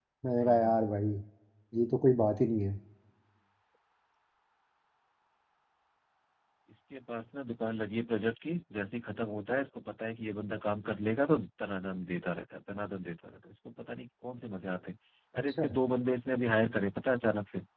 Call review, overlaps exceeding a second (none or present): none